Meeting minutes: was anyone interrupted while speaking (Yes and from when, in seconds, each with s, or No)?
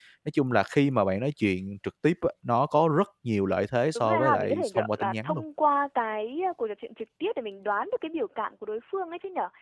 Yes, from 4.0 s